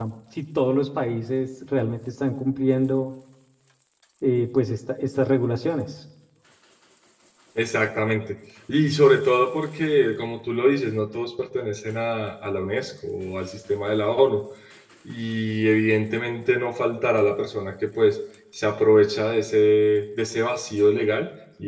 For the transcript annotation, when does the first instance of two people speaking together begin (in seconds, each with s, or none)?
none